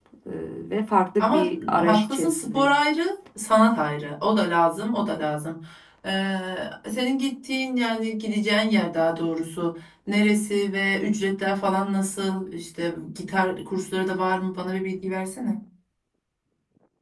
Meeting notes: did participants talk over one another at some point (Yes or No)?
Yes